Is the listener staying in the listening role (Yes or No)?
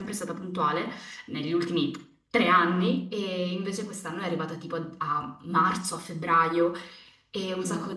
Yes